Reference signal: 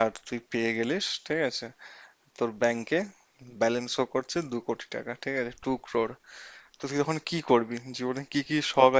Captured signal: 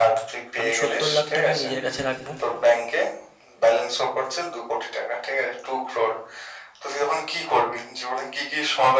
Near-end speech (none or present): present